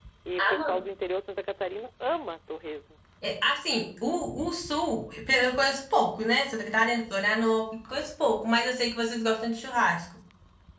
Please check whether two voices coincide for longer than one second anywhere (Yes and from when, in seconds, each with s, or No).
No